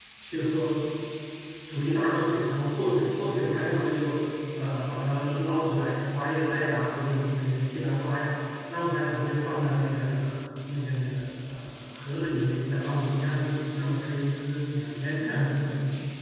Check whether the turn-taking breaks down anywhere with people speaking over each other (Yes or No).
No